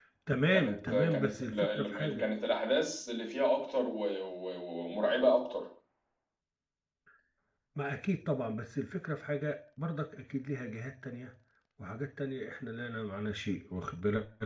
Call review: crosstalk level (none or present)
present